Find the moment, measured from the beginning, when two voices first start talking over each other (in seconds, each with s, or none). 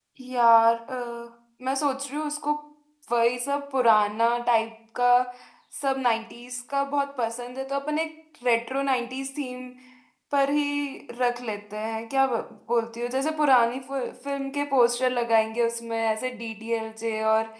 none